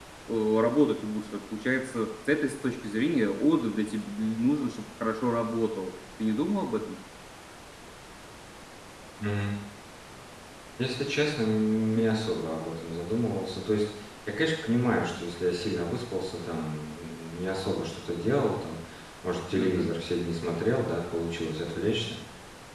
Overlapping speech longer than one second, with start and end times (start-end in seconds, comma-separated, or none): none